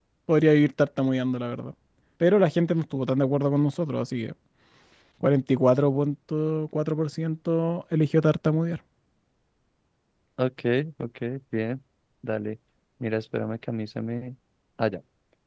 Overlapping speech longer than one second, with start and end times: none

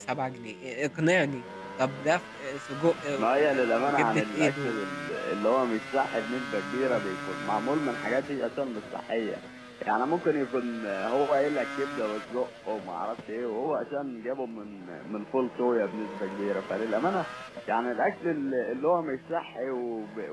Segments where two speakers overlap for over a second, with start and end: 3.2-4.8

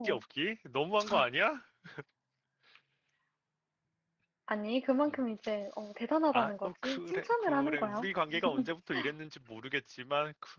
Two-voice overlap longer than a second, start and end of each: 6.3-8.0

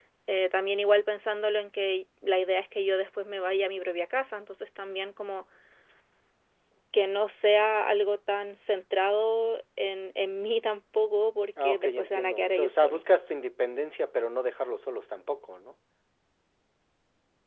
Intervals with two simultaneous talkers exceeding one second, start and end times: 11.6-13.0

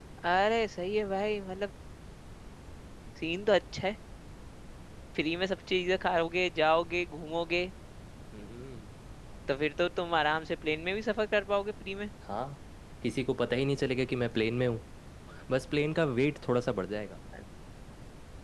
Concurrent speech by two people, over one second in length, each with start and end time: none

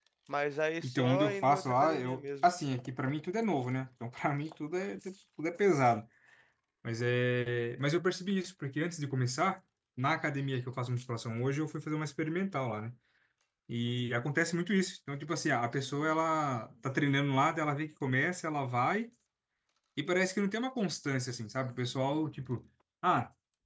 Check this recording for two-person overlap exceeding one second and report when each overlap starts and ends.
0.8-2.5

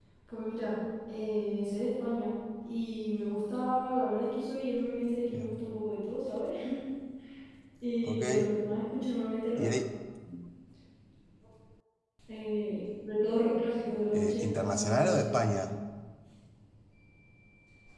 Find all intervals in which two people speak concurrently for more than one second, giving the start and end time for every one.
14.1-15.6

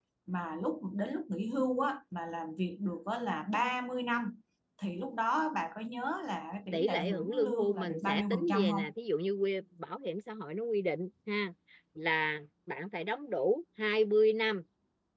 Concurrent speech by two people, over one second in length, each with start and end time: 6.7-8.8

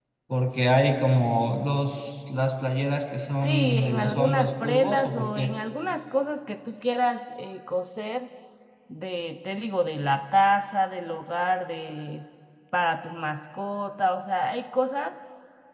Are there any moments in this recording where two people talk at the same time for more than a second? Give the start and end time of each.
3.3-5.5

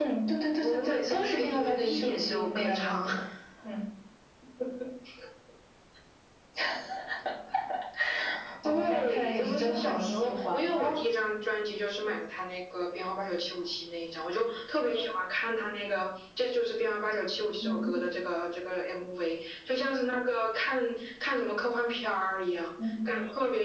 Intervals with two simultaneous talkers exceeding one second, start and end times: 0.6-3.1, 8.6-11.0

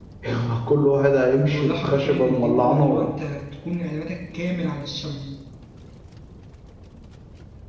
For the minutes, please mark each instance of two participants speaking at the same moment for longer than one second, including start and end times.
1.5-3.1

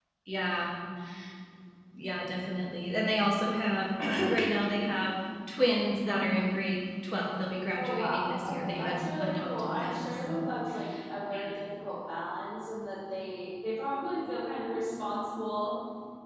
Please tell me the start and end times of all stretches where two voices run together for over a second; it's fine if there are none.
7.8-10.4

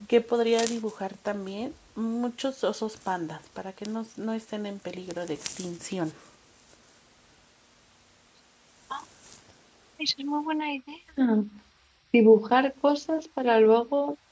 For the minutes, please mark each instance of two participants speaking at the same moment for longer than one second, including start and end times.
none

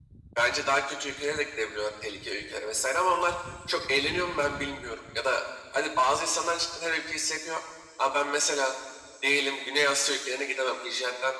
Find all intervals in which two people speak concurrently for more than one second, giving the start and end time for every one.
none

